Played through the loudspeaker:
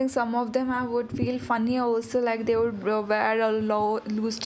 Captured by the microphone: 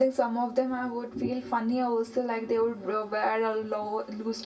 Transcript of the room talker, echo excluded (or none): none